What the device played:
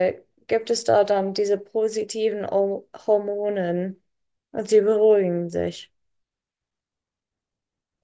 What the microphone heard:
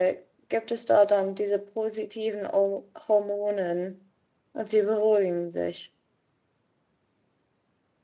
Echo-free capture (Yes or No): No